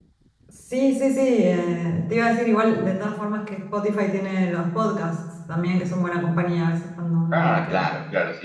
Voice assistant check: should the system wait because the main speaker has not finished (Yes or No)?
No